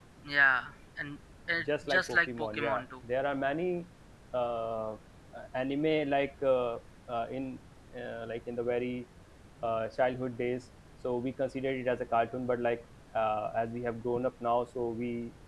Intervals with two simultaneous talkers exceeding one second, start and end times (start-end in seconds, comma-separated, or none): 1.6-2.9